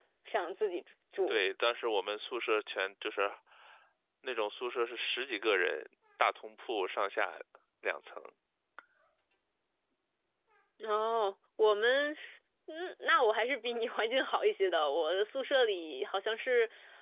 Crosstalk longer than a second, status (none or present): none